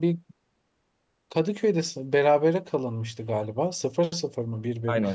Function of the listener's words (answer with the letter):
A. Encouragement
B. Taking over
B